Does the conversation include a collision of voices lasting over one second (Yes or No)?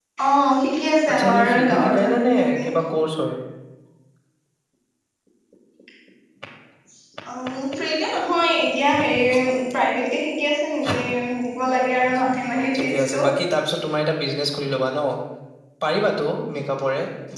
Yes